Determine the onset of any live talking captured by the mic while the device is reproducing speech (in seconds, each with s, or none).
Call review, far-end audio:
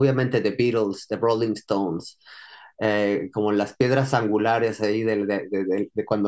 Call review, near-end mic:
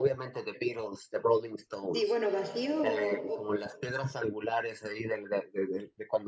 1.9 s